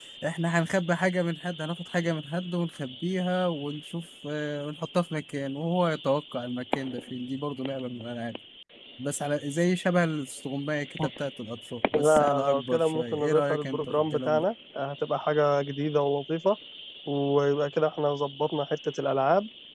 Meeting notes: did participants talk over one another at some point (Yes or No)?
Yes